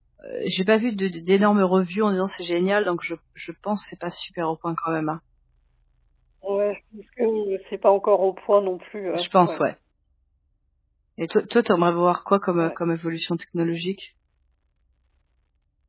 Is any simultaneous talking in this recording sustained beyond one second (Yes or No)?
No